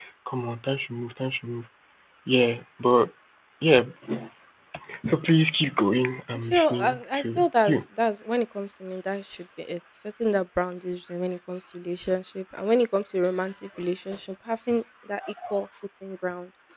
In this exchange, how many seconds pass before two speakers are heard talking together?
6 s

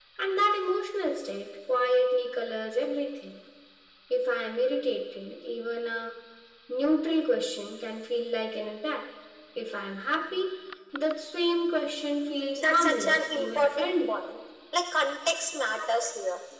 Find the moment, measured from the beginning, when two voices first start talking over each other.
13 s

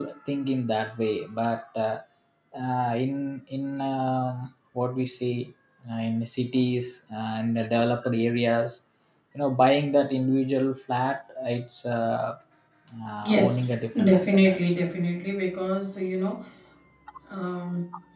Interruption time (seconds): 13 s

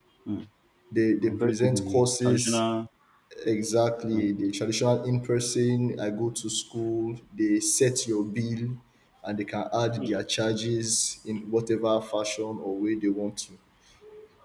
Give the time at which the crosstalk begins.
1 s

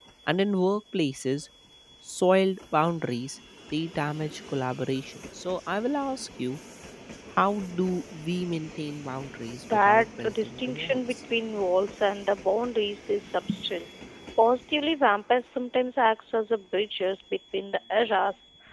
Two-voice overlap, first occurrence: 10 s

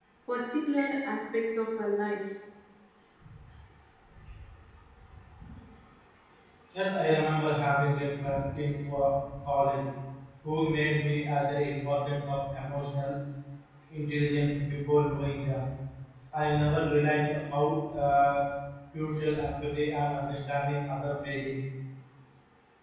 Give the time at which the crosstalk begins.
none

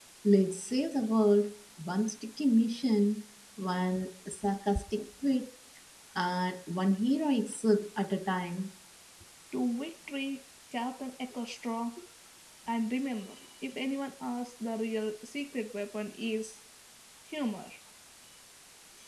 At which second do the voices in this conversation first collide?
none

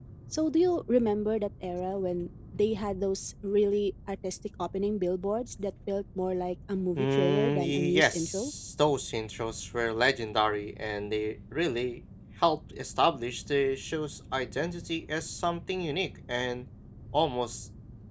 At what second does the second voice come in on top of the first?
7 s

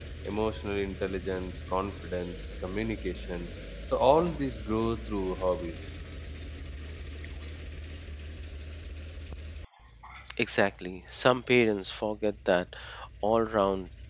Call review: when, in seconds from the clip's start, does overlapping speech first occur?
none

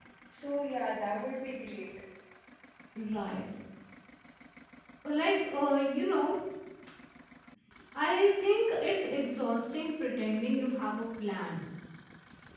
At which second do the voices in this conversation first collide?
none

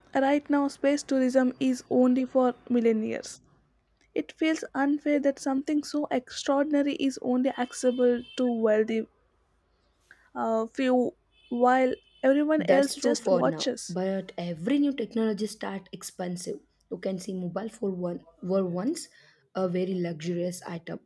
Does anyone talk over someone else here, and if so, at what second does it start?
13 s

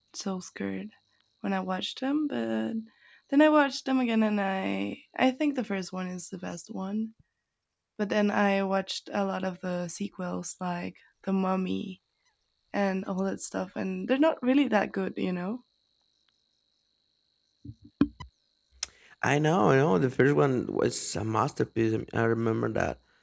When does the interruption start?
none

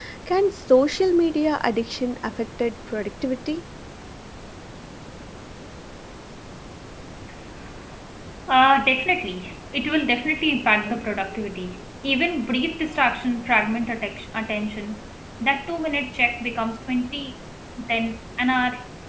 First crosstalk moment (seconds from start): none

